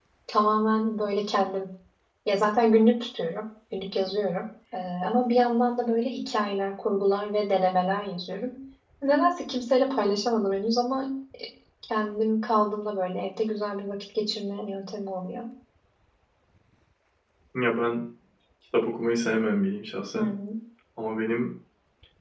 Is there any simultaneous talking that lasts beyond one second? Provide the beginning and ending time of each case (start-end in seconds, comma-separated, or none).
none